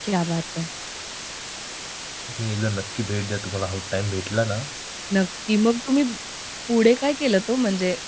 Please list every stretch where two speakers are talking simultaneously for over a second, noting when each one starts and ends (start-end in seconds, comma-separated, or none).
none